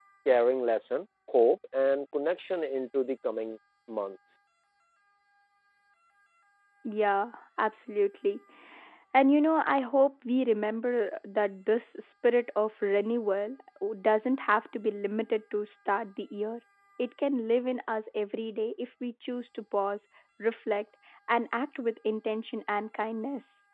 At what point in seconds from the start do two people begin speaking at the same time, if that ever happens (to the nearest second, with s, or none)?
none